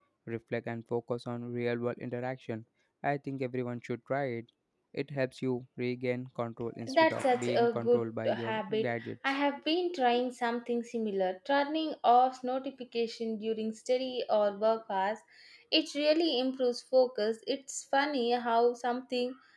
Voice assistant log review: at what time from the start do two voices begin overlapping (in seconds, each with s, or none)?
6.8 s